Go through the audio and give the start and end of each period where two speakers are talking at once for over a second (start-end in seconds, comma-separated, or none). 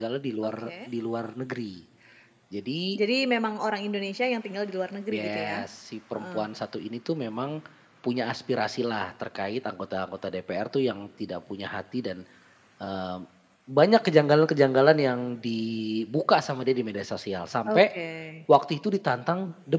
none